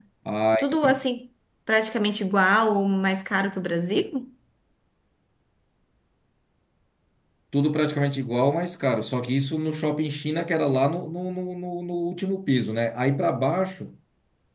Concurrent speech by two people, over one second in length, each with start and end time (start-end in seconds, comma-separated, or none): none